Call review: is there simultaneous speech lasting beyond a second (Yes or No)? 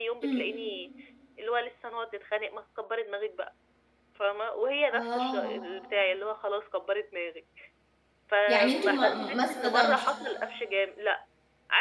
Yes